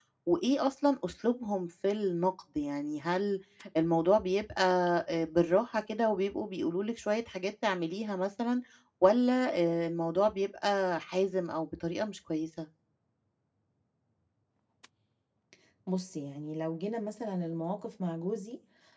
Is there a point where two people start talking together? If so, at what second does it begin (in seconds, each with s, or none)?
none